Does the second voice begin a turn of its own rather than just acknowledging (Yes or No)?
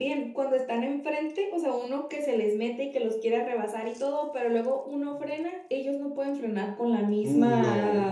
No